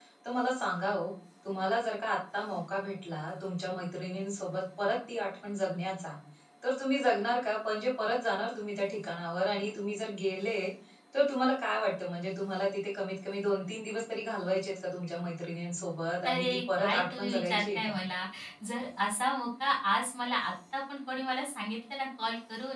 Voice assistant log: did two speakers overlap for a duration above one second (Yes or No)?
Yes